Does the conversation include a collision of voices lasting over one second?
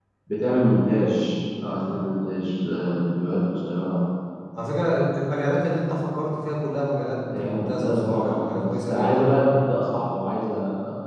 Yes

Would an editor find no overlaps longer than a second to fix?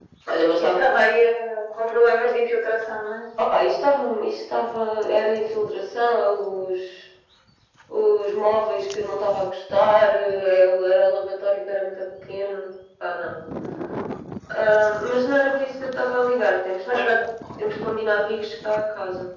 Yes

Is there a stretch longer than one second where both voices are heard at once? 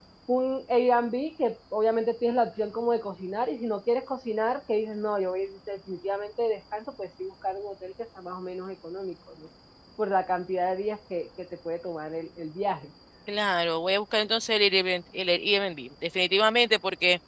No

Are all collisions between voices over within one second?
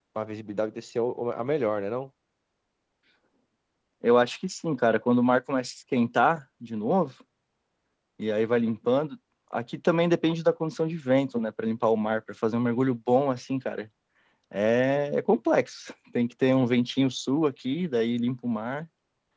Yes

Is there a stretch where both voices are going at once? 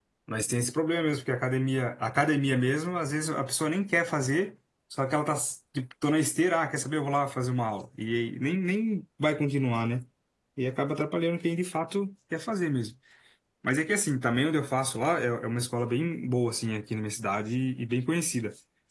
No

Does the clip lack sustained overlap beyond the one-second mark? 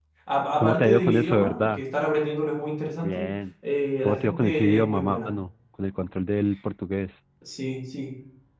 No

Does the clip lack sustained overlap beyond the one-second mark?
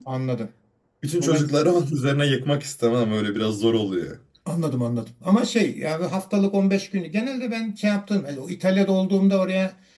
Yes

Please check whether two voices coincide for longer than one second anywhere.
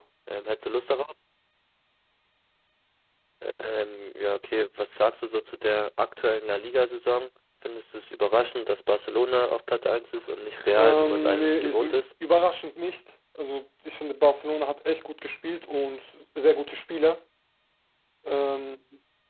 Yes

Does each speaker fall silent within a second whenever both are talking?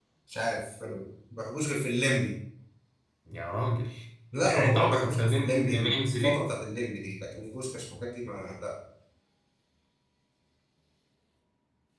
No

